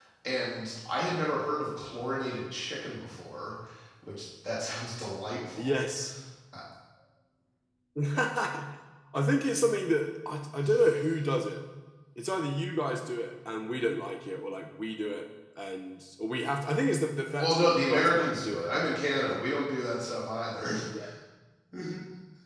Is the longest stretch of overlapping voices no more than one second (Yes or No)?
No